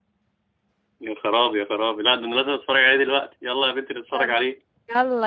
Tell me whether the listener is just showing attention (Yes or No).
No